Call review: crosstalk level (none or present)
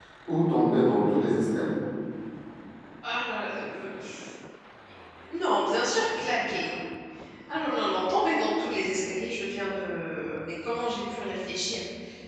none